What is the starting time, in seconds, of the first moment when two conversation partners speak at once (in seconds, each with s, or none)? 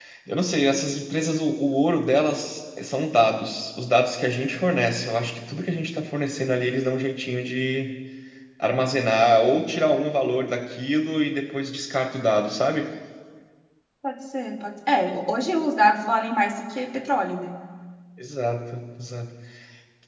none